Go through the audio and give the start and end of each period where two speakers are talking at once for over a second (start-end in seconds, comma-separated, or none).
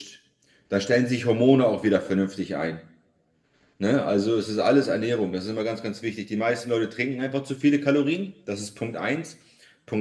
none